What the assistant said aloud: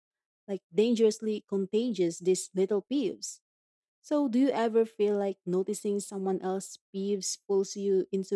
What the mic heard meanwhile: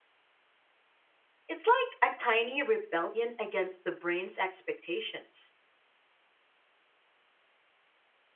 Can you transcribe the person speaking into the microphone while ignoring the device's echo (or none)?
It's like a tiny rebellion against the brain's expectations.